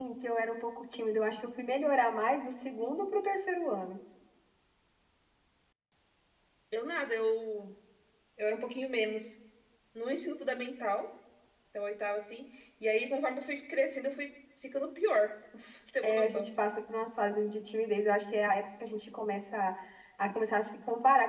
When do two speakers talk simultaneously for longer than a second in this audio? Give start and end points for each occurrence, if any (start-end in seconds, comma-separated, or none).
none